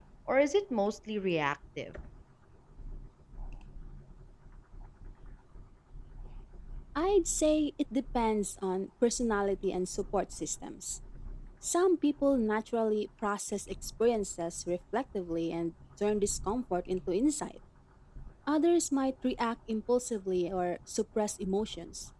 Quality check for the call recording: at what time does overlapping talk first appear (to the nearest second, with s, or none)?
none